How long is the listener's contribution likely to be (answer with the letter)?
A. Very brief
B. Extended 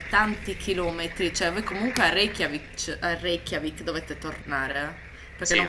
A